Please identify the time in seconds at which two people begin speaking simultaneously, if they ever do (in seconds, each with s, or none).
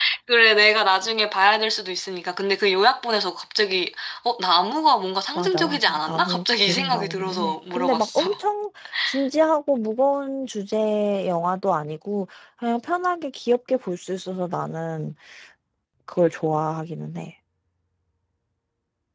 5.3 s